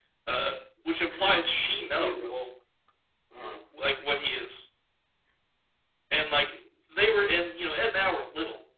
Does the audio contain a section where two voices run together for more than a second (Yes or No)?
Yes